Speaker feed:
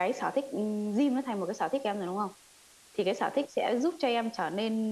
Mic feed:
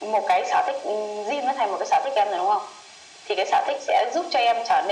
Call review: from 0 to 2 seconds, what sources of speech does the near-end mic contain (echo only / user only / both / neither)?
echo only